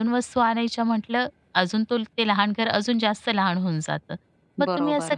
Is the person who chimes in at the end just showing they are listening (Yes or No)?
Yes